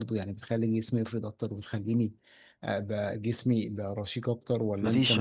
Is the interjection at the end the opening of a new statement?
Yes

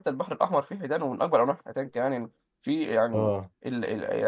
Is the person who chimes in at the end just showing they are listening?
Yes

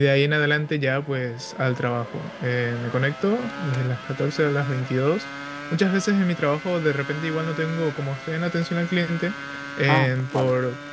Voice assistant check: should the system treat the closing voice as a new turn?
No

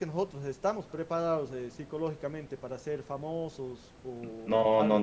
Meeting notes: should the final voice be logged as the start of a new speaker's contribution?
Yes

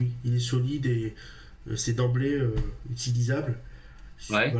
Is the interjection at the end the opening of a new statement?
No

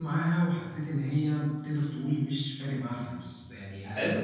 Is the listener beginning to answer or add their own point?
Yes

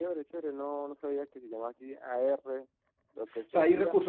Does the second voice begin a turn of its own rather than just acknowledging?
Yes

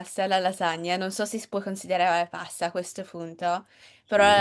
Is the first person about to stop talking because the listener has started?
No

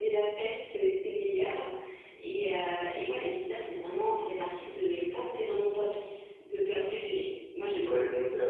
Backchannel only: No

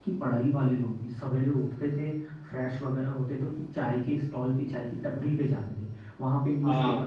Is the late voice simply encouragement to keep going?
Yes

